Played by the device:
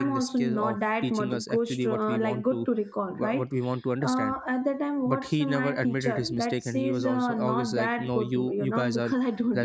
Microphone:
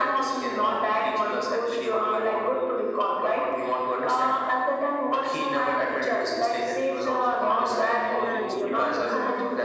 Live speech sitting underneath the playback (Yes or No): Yes